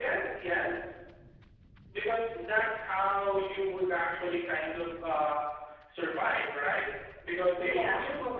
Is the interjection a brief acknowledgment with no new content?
Yes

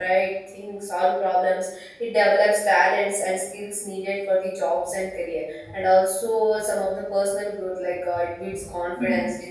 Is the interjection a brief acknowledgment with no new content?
Yes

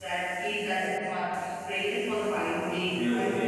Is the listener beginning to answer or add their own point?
Yes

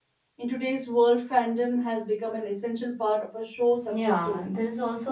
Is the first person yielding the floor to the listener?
Yes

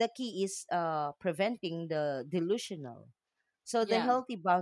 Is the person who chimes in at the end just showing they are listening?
Yes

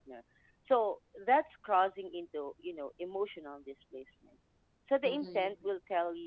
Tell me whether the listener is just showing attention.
Yes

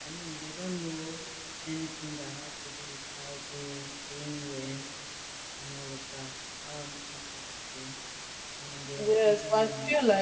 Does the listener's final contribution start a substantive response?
Yes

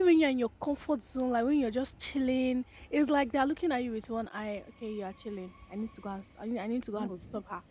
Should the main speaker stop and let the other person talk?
Yes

